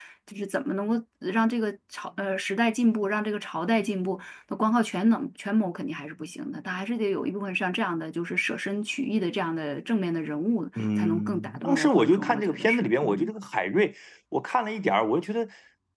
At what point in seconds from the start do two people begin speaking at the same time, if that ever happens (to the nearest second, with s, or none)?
11 s